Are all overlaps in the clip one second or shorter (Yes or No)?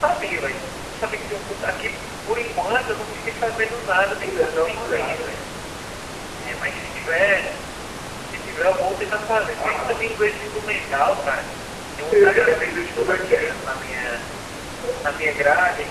No